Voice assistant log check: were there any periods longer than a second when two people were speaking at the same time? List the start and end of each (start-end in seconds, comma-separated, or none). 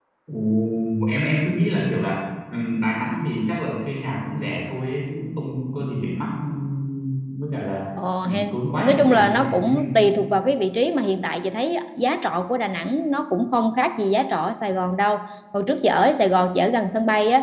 8.2-9.9